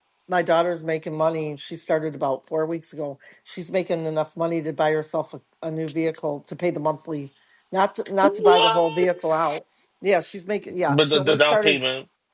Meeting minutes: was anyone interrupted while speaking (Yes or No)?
Yes